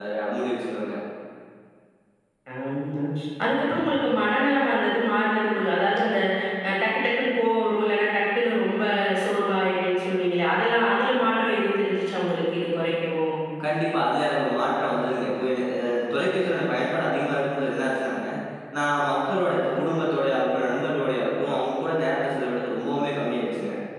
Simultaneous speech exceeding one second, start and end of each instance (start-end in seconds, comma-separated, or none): none